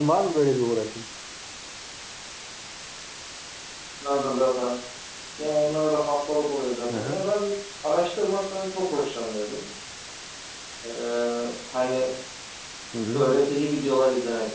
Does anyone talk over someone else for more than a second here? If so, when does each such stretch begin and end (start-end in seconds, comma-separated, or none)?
none